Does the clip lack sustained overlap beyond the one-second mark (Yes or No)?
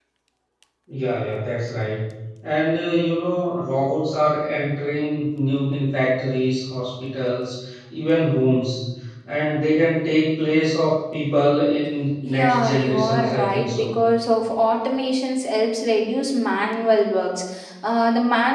No